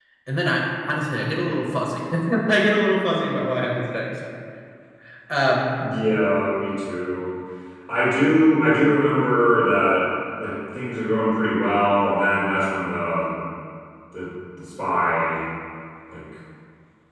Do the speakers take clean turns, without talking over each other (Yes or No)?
Yes